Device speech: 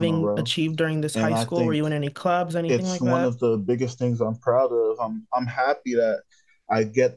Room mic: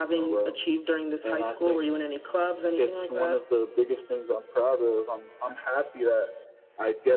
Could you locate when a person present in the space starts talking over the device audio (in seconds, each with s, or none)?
none